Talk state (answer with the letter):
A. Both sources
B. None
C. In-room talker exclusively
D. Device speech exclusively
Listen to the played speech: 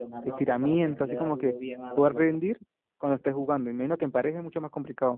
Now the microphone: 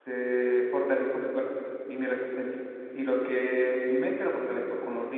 C